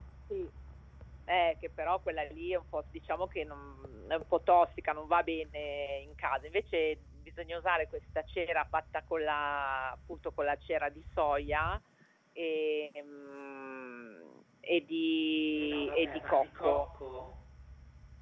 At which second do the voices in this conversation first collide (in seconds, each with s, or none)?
15.6 s